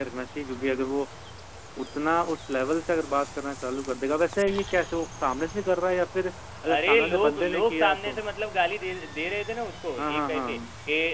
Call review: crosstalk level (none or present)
present